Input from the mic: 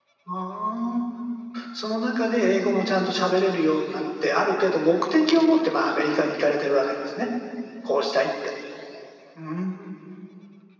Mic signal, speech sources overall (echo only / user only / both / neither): echo only